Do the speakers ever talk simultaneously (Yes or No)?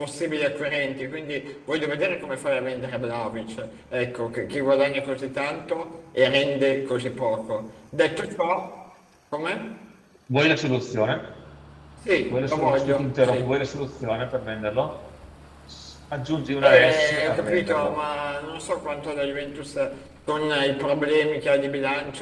Yes